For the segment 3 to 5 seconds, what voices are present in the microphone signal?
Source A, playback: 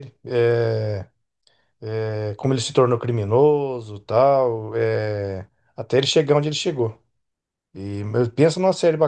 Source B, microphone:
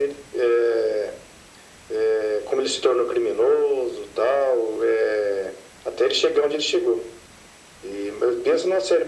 echo only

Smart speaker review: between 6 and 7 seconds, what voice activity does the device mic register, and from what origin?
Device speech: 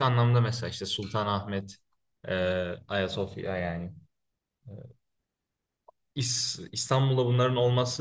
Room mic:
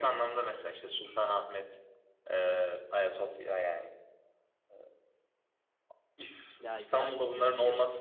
both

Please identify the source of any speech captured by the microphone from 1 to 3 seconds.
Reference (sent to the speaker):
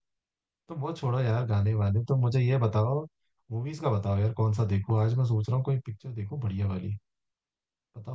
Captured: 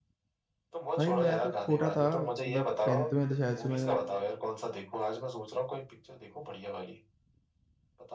both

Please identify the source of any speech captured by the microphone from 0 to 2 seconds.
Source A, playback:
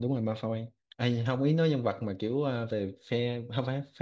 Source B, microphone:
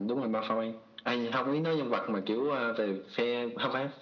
echo only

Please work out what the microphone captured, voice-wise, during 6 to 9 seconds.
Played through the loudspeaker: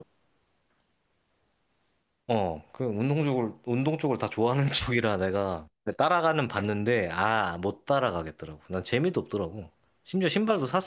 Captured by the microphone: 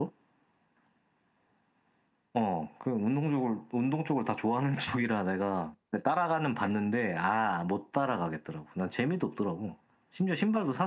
echo only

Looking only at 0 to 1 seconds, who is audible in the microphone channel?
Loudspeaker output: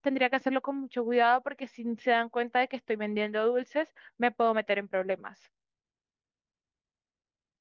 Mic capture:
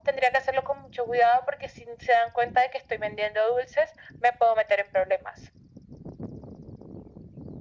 echo only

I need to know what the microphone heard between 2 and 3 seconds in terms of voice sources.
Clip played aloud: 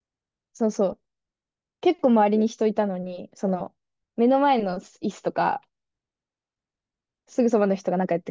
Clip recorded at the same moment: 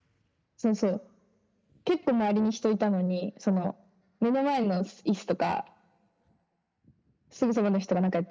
echo only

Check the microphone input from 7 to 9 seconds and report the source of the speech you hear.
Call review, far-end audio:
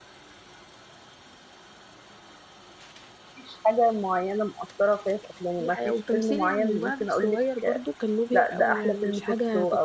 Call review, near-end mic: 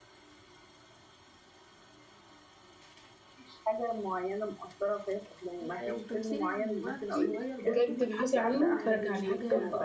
both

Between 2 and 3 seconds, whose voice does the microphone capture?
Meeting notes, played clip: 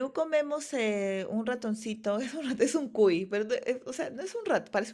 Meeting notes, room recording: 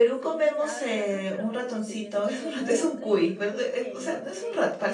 both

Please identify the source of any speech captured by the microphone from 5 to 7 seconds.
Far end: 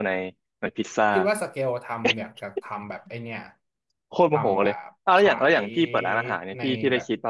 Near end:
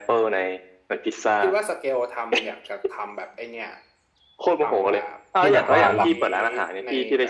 both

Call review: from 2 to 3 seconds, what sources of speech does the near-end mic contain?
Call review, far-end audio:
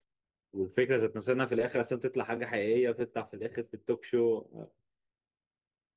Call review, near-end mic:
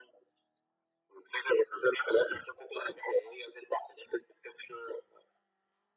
echo only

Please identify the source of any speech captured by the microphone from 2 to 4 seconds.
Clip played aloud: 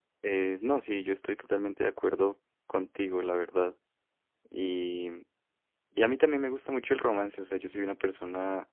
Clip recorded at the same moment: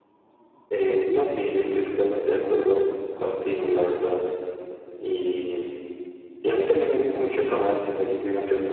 echo only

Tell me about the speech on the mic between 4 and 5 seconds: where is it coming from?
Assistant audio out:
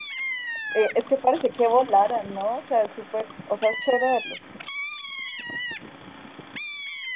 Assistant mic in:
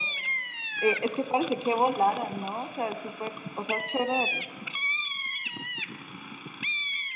echo only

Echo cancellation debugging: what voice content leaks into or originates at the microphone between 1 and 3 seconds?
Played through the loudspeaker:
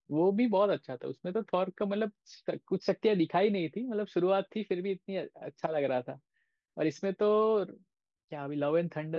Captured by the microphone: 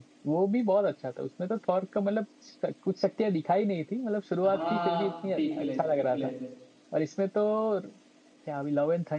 echo only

